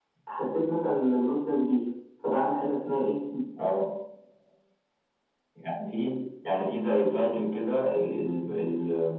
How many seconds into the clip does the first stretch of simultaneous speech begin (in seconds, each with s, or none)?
none